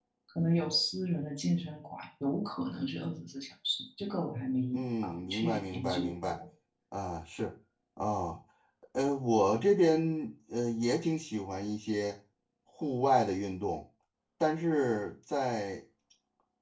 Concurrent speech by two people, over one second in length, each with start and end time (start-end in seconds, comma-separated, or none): 4.7-6.4